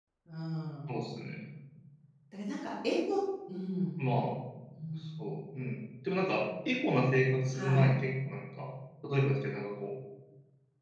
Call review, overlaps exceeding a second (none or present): none